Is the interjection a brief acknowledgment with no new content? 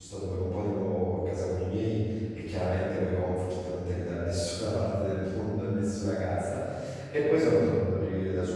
Yes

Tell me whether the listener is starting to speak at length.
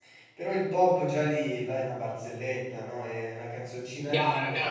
Yes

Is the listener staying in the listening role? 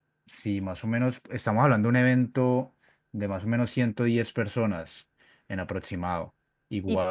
Yes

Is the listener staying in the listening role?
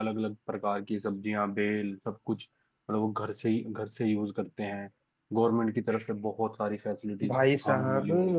No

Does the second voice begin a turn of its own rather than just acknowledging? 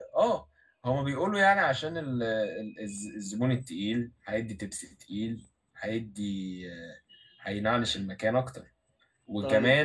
No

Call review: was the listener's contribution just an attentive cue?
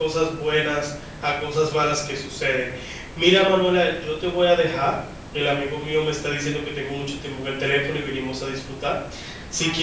Yes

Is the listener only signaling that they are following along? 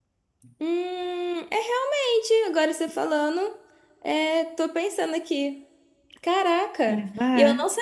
Yes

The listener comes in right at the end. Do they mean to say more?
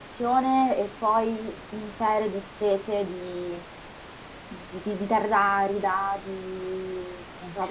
No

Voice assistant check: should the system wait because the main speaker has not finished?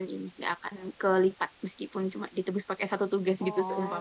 No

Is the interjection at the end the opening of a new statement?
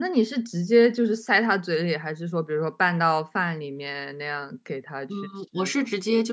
Yes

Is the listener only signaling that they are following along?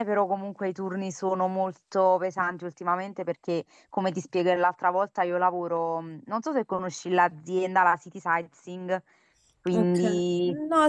No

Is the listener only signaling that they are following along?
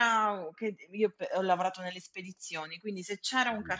Yes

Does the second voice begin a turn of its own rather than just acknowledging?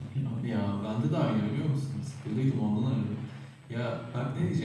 No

